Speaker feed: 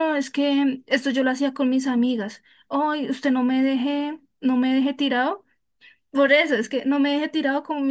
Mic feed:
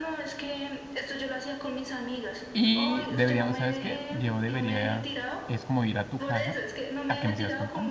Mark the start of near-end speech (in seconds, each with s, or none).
2.5 s